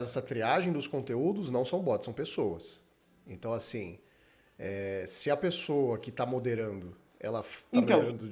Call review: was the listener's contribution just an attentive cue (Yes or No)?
Yes